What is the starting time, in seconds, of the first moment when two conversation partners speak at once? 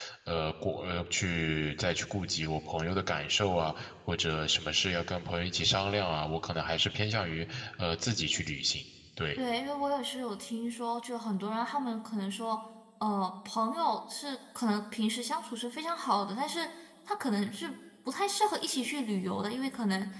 none

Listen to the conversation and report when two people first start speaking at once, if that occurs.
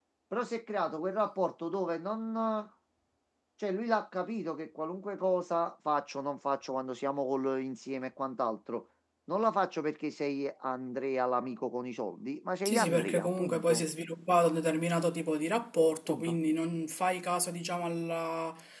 12.7 s

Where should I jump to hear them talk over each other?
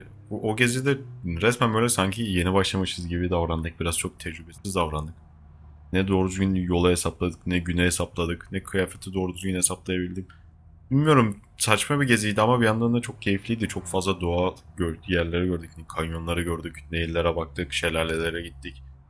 none

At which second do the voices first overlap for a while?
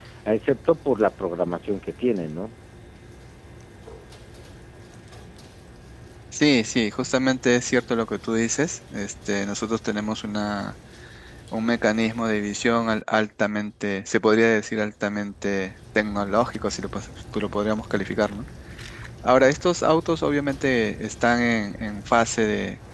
none

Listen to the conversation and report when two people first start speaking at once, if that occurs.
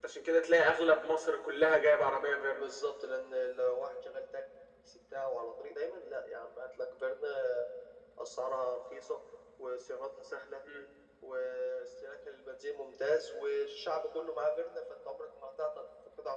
none

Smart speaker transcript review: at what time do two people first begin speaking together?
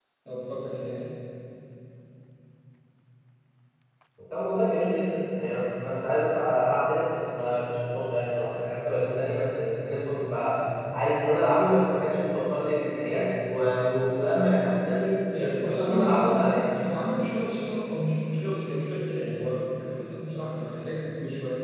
15.3 s

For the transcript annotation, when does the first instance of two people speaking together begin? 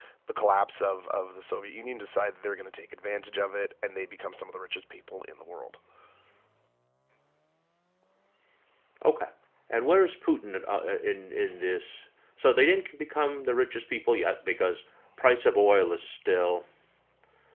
none

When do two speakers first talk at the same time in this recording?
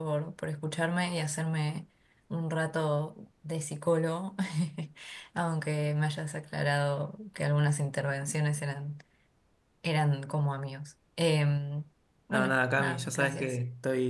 12.3 s

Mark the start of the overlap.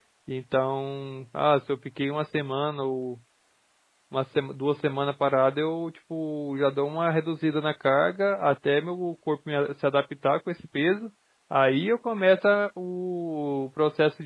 none

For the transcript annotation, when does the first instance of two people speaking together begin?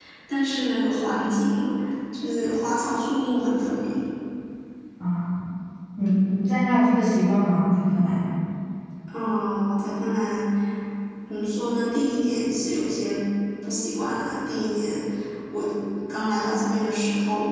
none

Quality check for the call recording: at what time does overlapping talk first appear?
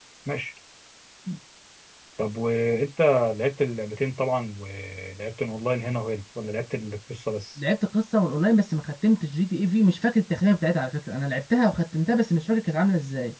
none

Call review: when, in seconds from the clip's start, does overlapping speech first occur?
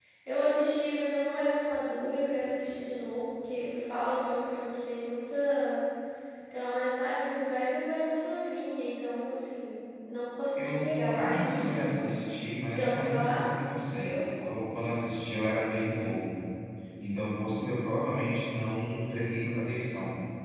10.6 s

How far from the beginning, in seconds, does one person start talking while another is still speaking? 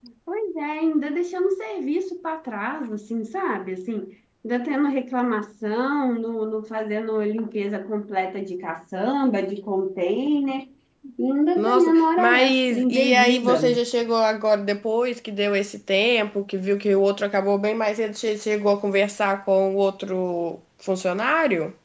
11.6 s

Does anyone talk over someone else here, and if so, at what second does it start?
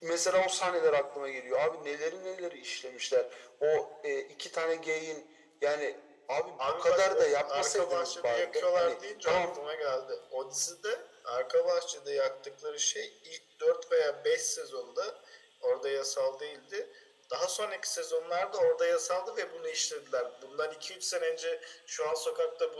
6.6 s

